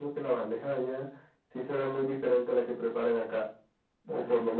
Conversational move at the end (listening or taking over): listening